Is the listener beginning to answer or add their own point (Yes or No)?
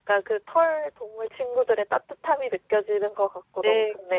Yes